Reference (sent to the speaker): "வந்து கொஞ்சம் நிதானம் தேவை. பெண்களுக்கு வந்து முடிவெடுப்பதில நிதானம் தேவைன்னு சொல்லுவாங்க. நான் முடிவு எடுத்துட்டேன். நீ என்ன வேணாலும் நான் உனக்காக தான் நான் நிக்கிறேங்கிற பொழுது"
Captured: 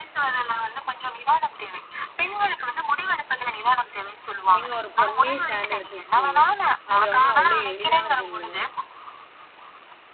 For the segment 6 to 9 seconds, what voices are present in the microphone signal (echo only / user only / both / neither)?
both